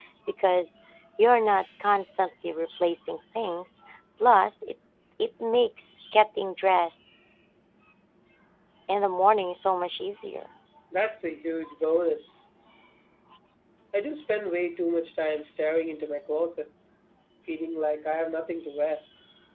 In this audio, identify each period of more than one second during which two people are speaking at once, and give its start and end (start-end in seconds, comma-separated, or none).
none